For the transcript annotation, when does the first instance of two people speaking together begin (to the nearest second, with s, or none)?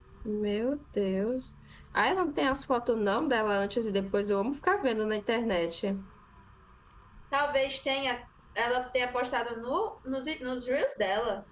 none